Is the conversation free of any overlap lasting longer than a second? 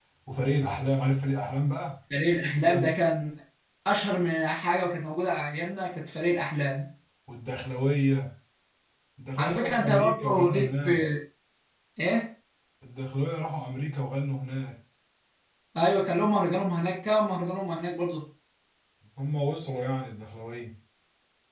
No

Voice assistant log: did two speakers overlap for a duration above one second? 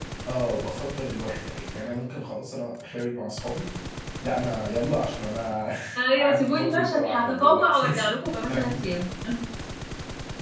Yes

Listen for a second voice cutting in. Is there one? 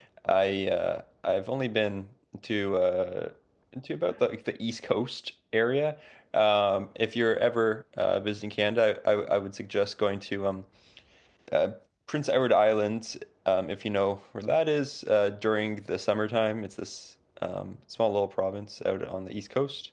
No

